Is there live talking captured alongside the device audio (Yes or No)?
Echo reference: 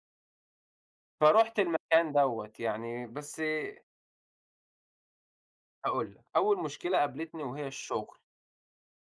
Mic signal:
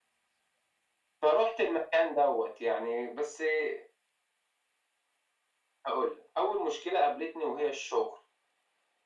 No